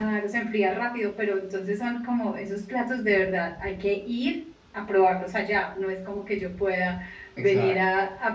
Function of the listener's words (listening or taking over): listening